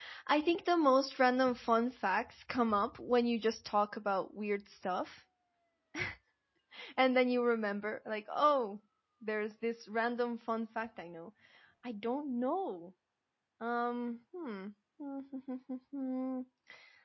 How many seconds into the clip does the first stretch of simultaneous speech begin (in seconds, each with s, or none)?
none